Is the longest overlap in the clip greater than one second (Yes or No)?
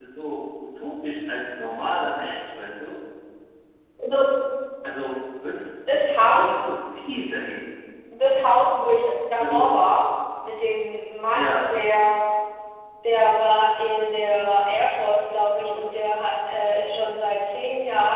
No